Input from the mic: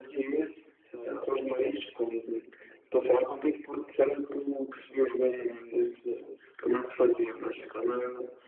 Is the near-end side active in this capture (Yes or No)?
No